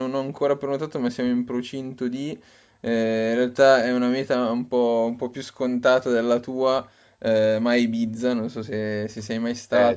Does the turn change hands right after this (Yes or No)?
No